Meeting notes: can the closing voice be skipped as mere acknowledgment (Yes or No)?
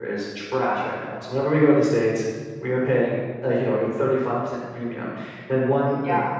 Yes